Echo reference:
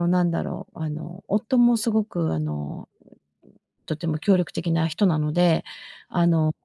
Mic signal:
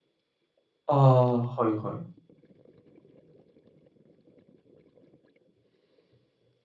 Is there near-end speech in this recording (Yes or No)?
Yes